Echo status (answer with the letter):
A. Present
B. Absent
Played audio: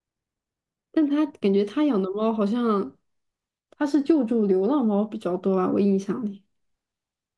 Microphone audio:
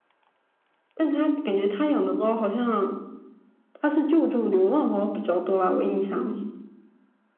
A